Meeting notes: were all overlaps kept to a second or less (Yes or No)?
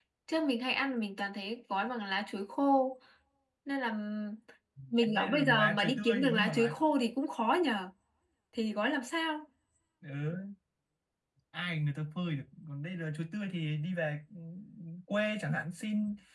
No